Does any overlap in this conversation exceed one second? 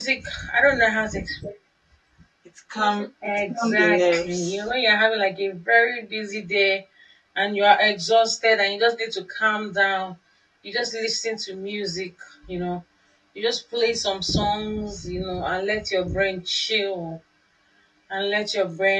Yes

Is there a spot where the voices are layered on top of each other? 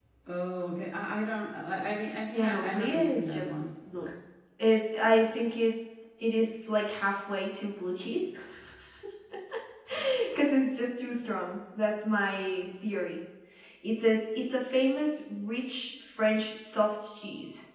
Yes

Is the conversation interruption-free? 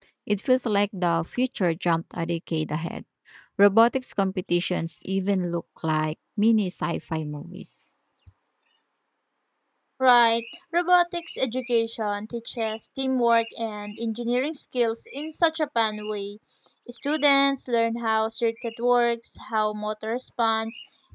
Yes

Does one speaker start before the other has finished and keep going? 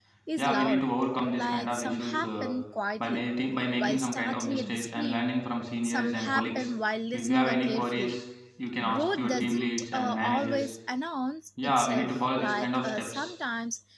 Yes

